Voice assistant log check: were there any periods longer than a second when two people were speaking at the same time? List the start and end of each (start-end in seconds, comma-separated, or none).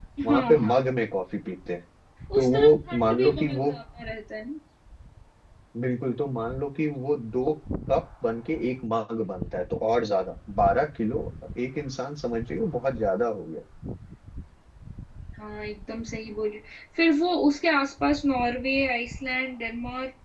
2.4-3.7